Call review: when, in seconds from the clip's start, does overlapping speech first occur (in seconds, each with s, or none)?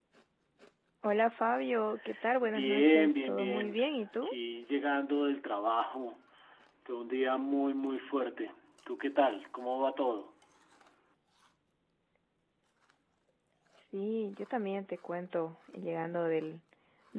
2.4 s